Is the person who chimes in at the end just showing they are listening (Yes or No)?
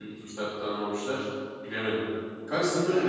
Yes